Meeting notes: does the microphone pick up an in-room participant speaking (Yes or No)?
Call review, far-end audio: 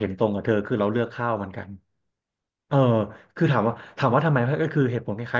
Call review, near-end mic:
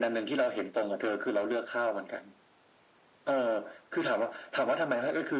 No